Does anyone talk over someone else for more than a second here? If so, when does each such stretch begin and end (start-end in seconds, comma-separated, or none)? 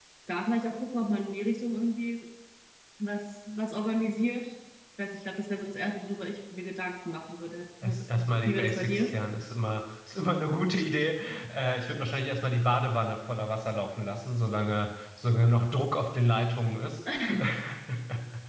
7.8-9.1